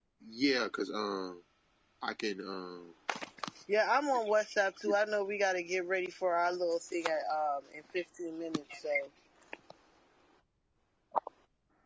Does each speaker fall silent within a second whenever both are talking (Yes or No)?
Yes